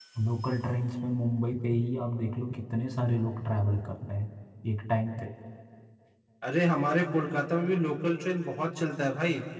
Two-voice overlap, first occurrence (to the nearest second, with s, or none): none